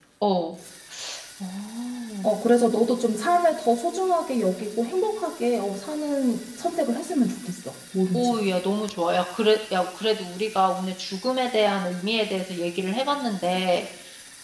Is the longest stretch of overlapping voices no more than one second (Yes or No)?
Yes